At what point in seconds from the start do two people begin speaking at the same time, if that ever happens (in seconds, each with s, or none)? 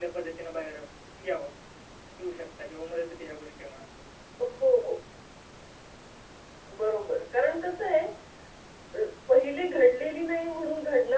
none